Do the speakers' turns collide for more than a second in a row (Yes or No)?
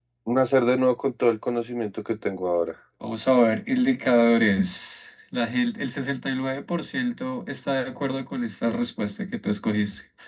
No